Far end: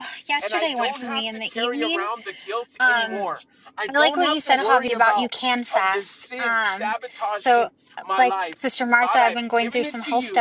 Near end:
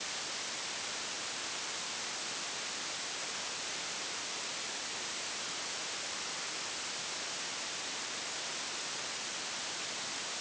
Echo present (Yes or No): No